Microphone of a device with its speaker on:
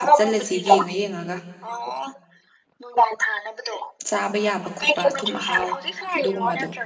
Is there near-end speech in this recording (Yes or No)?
Yes